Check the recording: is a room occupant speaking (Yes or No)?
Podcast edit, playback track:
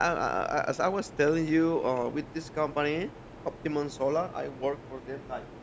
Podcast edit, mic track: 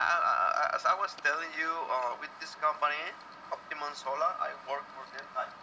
No